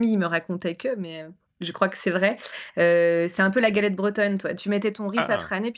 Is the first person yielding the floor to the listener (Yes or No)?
No